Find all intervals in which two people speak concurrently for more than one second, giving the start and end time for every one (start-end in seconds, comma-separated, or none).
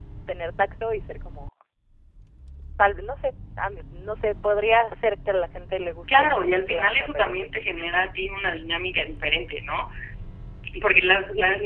6.1-7.5